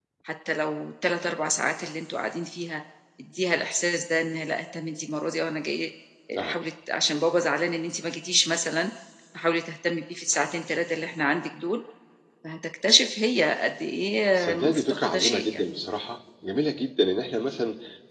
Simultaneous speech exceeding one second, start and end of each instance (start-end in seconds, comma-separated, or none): 14.4-15.7